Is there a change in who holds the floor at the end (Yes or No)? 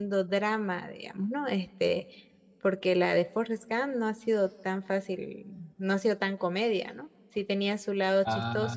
No